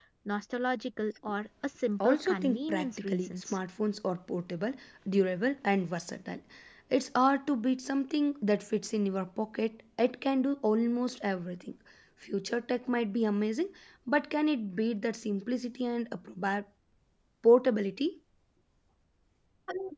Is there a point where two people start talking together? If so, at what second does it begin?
2.0 s

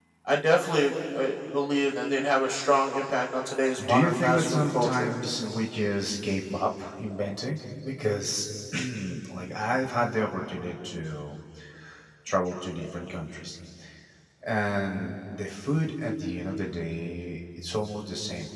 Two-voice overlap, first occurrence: 3.8 s

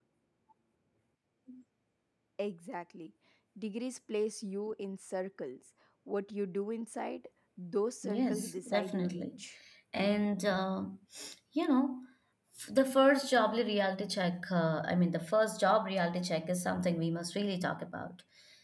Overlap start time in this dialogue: 8.0 s

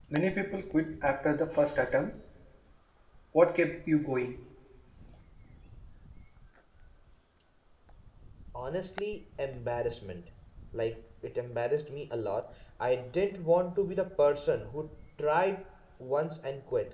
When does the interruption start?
none

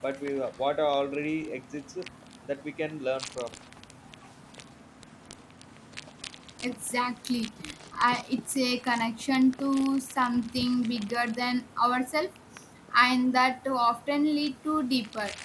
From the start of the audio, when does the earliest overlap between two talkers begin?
none

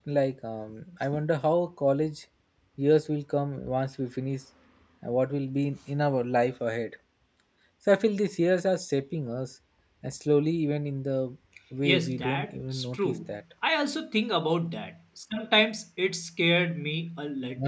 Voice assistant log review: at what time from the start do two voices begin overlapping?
11.8 s

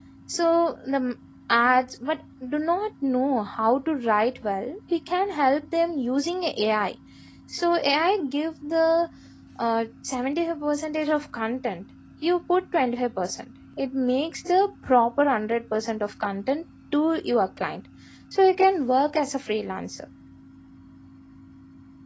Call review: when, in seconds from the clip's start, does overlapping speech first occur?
none

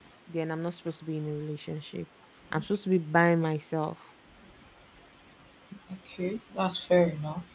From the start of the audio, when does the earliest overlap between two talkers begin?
none

